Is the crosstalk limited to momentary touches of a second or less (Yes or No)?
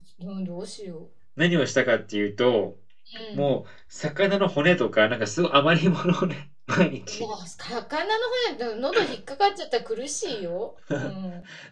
Yes